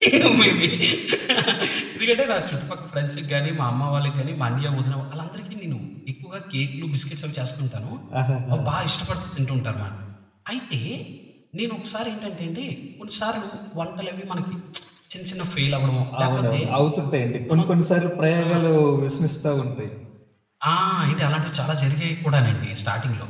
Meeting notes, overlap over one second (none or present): none